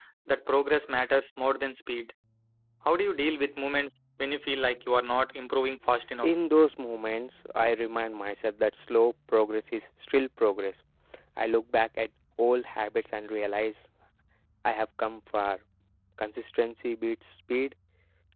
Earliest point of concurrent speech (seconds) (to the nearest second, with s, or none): none